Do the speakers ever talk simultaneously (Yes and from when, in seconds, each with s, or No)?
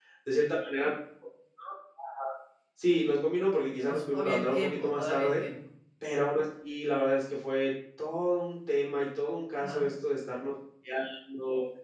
Yes, from 3.8 s